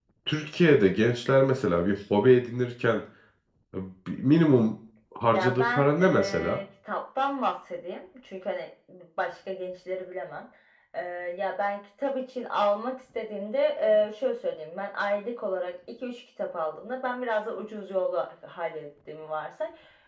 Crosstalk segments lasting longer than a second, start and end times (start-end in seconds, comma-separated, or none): 5.3-6.6